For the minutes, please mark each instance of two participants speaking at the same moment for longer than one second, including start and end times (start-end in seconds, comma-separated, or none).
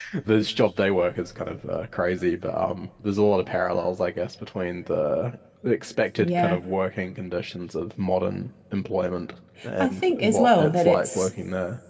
9.8-11.3